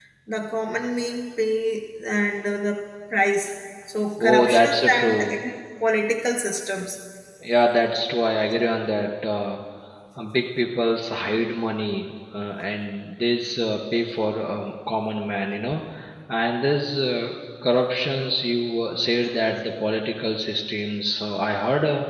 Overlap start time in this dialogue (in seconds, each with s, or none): 4.2 s